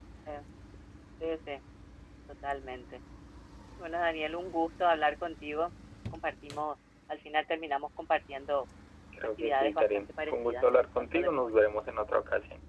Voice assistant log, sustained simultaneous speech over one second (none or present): present